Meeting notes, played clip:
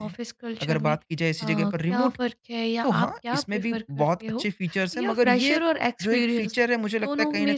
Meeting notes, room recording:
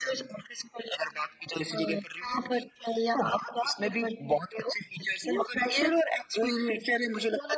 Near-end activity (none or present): none